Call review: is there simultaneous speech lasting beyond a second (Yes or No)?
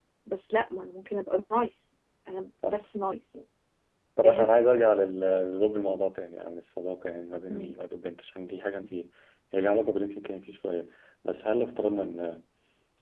No